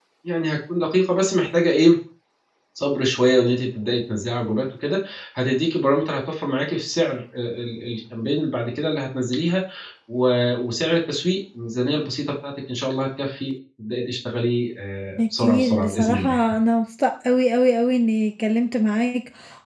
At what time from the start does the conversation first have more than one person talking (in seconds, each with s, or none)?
15.2 s